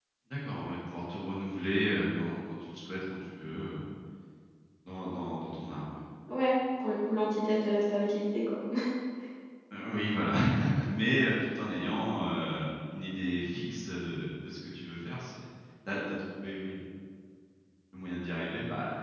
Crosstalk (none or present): none